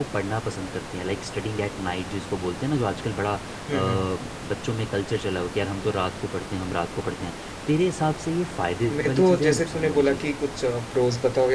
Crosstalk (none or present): present